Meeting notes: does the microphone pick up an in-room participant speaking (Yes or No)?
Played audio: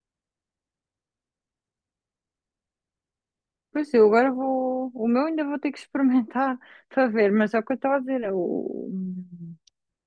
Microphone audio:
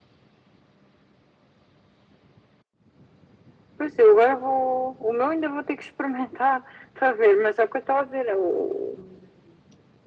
No